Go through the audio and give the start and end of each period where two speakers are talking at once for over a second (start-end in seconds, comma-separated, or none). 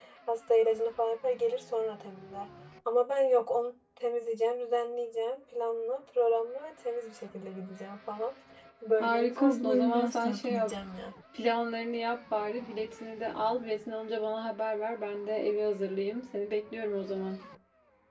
9.0-10.7